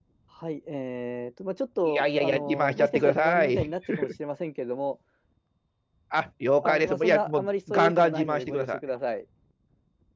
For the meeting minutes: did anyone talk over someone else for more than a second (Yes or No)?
Yes